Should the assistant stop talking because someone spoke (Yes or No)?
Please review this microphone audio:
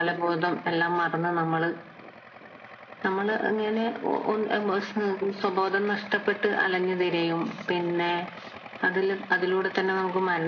No